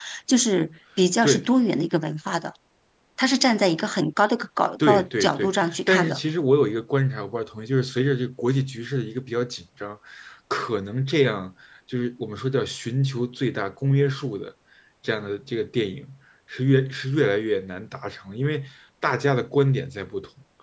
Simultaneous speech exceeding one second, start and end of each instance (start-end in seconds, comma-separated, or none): 4.9-6.2